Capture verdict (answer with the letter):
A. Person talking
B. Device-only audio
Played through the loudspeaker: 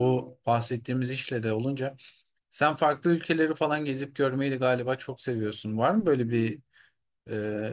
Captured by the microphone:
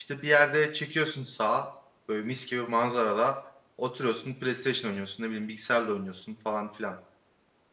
A